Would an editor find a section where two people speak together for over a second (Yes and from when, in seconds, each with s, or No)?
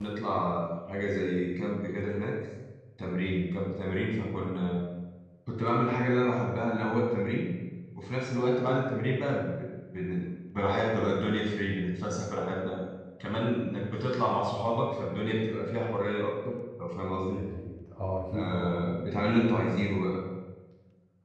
No